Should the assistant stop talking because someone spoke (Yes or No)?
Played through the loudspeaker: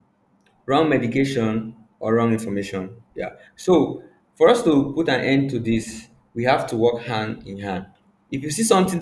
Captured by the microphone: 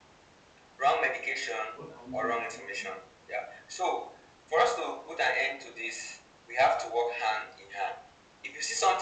Yes